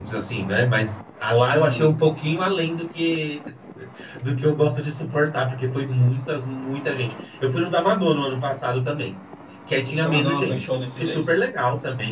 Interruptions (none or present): present